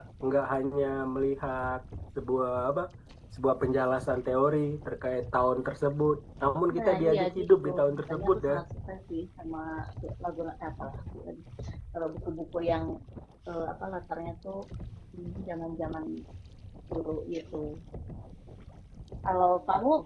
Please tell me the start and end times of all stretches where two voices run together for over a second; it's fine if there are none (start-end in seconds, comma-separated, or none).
6.8-8.5